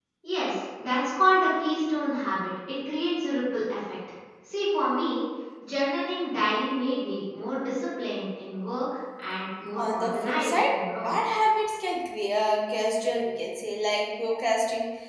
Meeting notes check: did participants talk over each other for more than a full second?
Yes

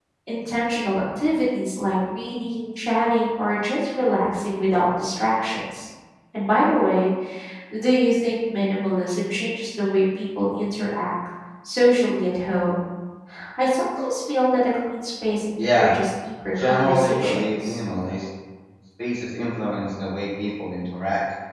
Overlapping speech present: Yes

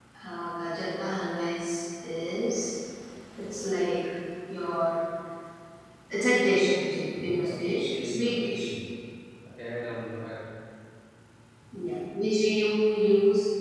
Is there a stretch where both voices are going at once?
Yes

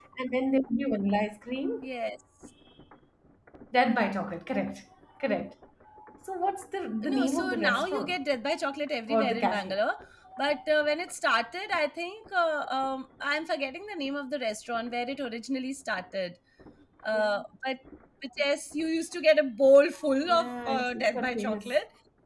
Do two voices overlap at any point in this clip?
Yes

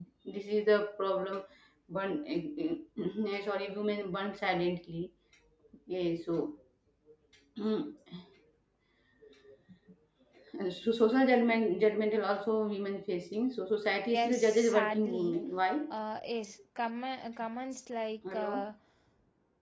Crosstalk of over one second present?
Yes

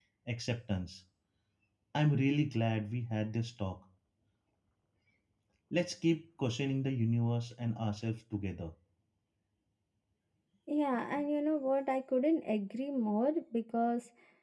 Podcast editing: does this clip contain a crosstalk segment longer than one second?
No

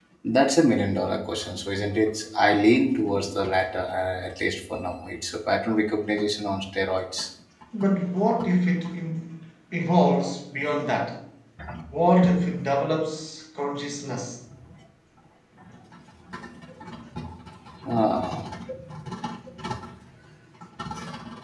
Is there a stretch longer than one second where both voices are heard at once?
No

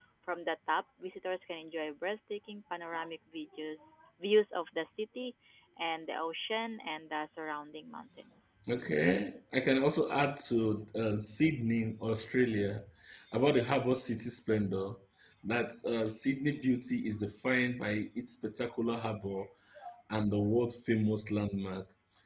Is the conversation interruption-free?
Yes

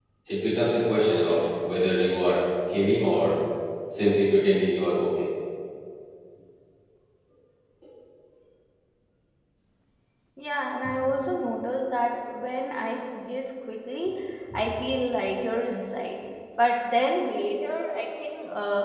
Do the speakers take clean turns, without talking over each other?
Yes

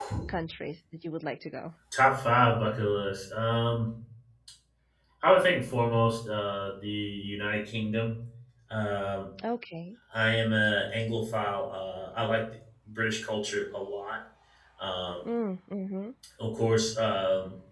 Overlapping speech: No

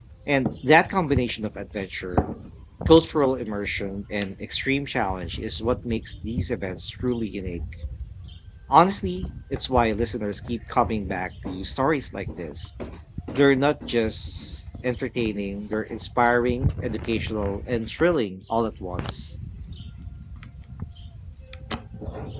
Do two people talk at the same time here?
No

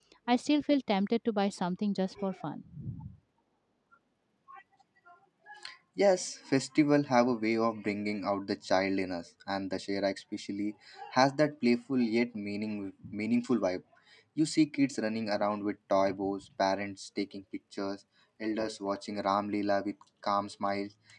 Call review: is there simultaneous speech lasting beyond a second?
No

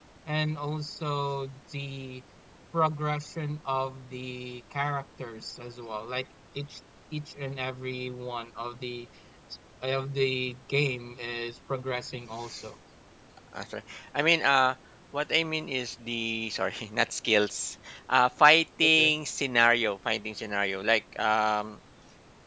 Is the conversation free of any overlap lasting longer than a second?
Yes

